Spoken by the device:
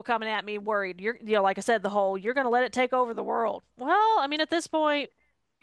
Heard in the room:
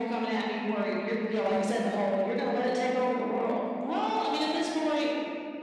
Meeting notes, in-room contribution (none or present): none